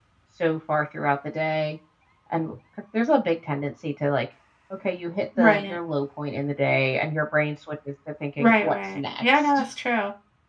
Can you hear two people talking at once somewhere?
Yes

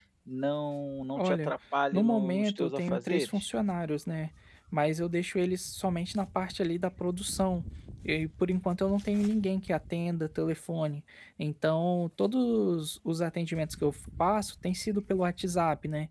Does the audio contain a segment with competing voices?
Yes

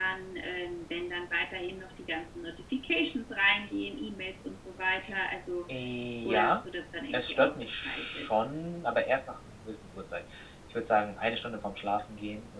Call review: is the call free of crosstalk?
No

